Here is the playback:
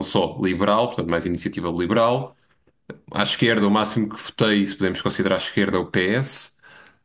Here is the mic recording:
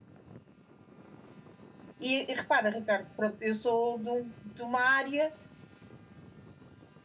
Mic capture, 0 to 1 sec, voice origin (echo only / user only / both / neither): neither